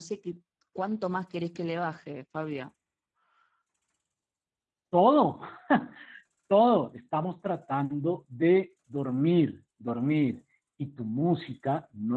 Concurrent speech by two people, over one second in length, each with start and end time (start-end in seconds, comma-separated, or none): none